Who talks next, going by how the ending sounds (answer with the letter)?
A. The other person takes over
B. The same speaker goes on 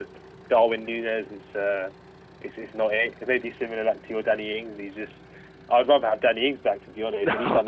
B